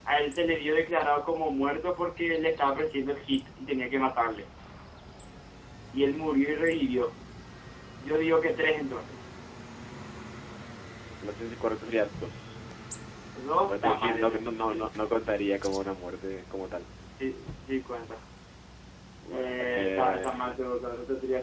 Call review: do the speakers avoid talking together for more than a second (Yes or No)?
No